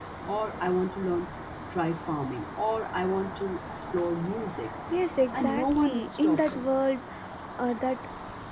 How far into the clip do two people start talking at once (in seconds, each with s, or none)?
5.3 s